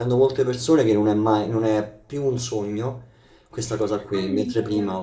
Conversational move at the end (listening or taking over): listening